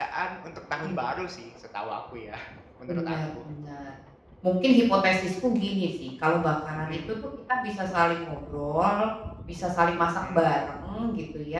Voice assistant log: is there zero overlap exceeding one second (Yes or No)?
Yes